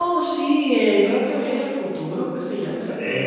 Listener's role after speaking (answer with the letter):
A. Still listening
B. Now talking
B